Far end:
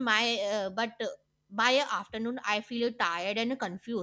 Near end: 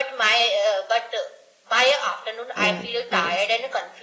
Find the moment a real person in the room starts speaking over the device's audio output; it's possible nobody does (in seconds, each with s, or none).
2.5 s